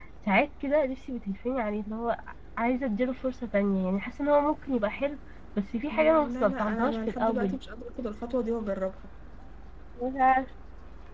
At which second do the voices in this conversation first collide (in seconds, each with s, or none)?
5.9 s